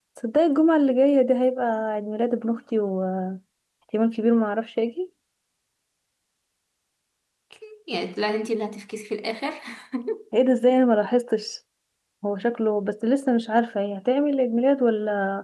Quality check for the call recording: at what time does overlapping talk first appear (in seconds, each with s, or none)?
none